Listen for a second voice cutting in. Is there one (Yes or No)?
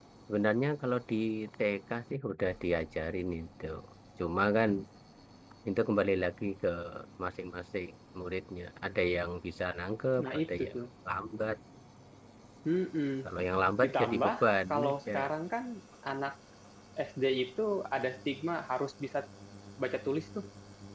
Yes